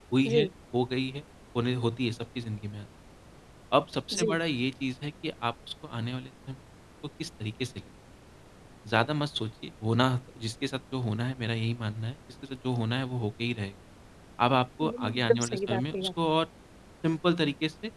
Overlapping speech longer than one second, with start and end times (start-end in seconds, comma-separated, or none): 14.8-16.0